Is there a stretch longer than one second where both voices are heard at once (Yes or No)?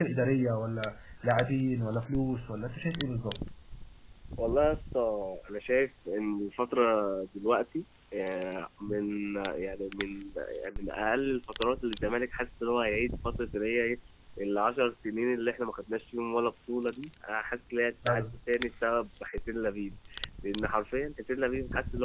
No